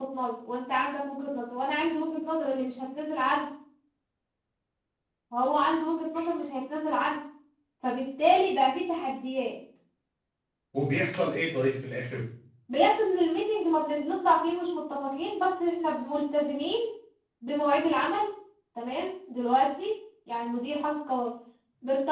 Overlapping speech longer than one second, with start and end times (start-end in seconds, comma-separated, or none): none